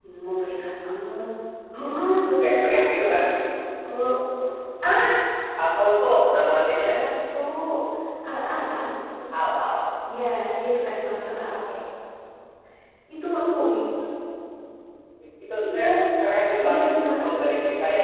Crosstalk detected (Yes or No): Yes